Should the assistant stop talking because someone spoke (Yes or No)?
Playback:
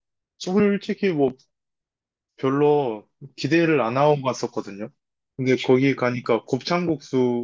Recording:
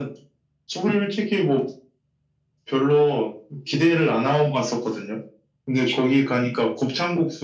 No